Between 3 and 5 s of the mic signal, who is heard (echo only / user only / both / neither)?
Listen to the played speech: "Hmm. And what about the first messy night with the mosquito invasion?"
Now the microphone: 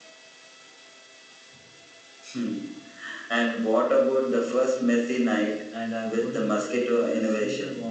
echo only